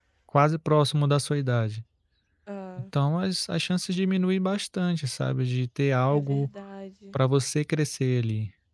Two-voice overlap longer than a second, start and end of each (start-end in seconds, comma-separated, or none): none